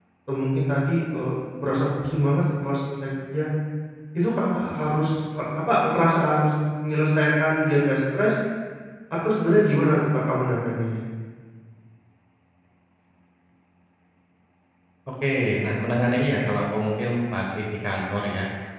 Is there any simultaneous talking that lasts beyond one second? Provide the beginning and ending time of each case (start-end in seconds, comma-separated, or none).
none